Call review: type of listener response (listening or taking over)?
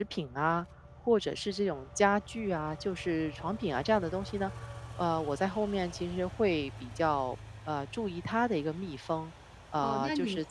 taking over